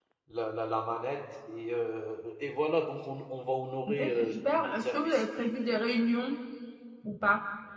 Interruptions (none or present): present